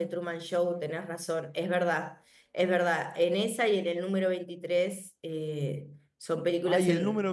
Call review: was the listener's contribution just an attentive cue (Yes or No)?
No